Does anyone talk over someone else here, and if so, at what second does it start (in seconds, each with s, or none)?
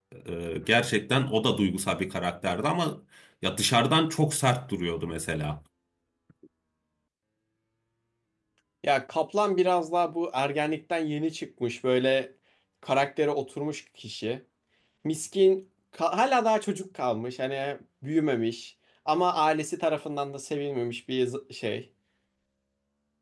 none